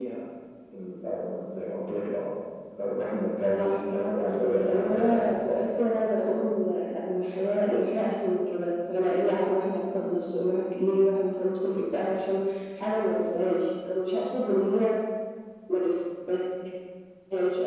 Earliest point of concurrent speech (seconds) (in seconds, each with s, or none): 3.6 s